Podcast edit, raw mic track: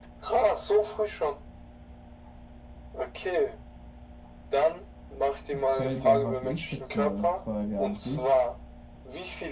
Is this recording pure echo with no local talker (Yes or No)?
No